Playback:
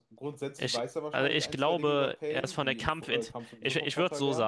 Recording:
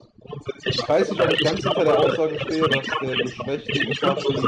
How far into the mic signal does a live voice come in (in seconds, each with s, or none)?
0.7 s